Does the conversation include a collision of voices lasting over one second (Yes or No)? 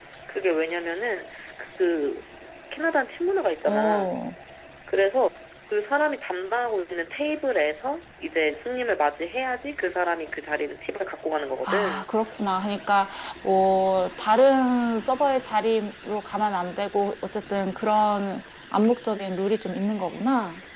No